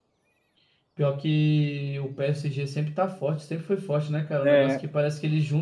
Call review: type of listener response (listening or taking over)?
listening